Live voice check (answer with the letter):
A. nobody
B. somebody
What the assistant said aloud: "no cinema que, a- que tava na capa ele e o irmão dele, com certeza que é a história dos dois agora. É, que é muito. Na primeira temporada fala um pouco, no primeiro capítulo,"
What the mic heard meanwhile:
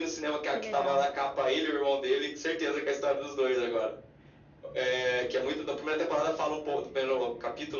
B